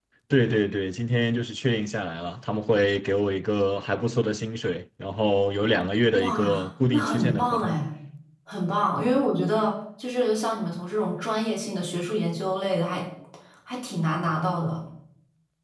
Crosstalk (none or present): present